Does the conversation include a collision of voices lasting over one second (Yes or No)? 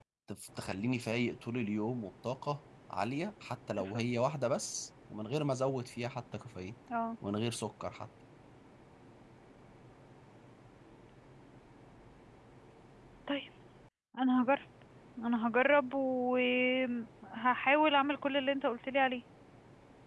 No